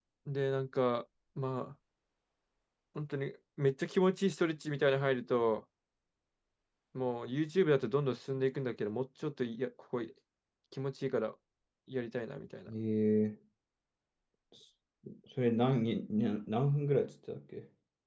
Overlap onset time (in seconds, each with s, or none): none